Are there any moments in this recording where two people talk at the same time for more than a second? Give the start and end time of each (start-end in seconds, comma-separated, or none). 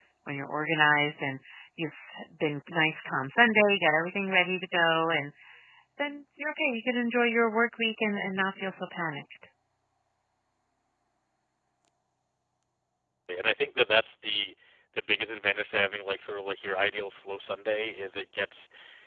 none